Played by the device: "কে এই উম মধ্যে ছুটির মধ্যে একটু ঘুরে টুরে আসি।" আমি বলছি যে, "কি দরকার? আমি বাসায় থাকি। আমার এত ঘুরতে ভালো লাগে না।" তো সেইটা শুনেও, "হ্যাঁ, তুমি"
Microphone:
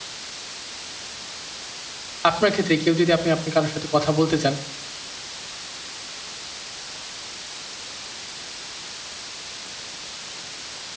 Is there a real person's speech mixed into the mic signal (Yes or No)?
Yes